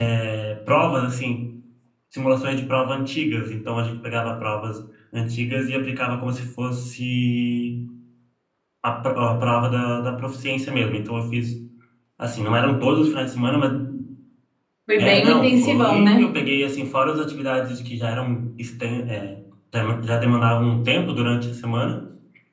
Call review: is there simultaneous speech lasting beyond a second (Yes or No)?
Yes